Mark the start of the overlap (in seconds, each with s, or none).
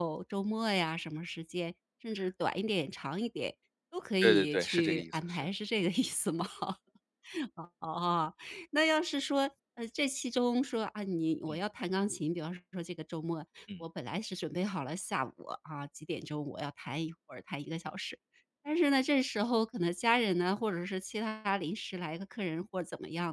4.2 s